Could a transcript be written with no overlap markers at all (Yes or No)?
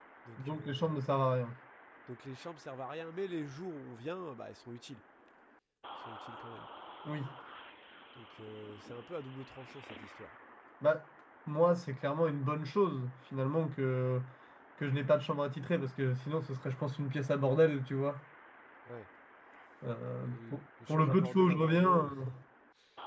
No